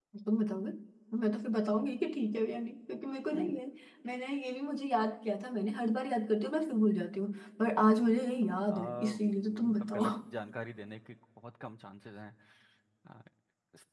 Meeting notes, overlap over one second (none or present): present